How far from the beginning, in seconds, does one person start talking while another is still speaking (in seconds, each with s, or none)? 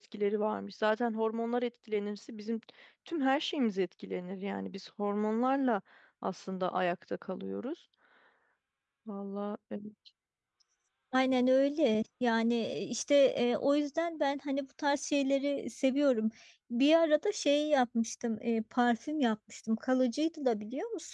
none